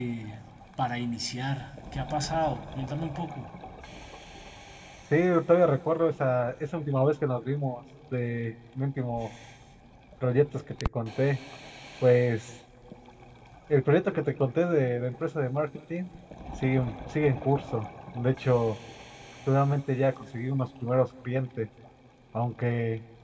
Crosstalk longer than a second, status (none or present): none